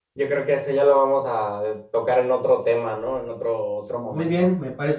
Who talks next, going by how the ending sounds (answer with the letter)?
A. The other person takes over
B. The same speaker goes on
A